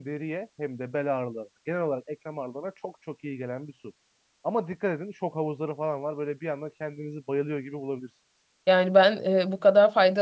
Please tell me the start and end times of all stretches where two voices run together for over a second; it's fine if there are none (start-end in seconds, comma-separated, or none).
none